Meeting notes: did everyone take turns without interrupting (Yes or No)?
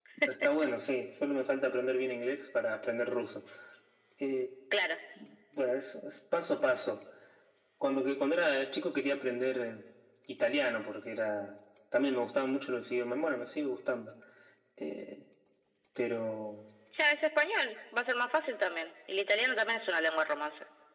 Yes